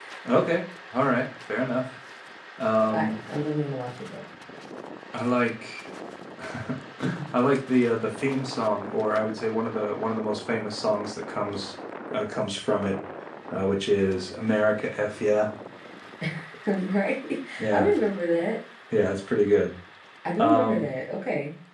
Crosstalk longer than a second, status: none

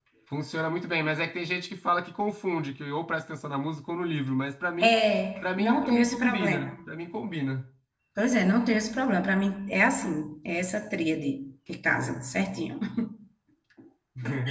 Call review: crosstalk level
present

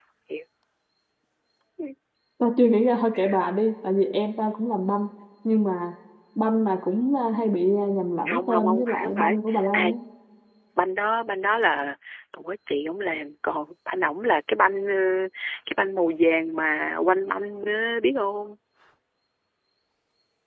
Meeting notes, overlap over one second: present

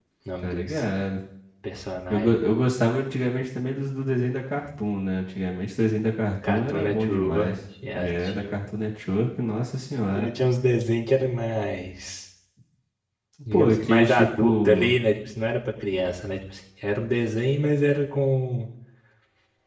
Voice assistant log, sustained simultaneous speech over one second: present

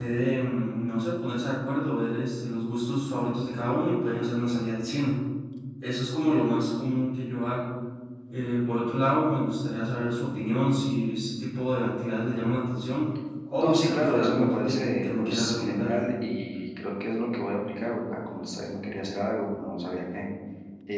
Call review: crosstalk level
present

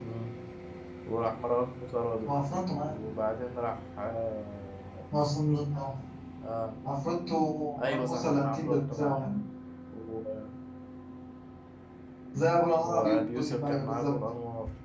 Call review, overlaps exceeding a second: present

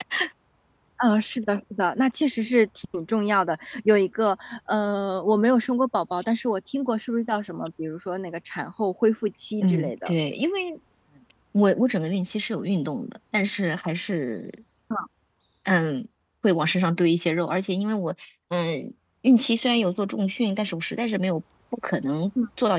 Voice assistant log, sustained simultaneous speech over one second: none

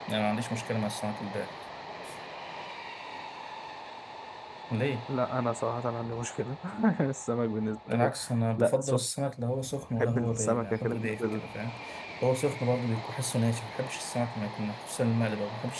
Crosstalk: present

